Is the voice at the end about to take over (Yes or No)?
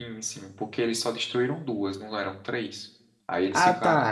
Yes